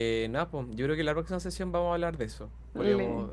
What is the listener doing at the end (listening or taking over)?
listening